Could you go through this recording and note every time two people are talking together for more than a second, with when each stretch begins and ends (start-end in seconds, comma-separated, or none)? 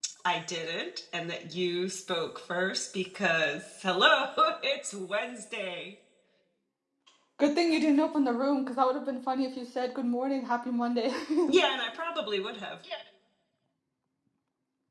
none